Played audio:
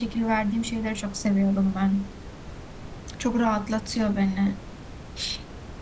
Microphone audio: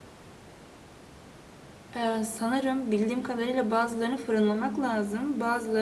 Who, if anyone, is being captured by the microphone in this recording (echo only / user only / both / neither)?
user only